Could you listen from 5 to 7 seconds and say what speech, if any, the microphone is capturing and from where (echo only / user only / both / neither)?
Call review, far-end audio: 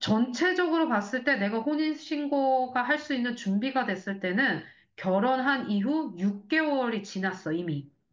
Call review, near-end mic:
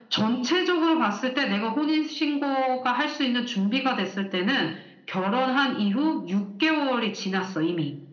echo only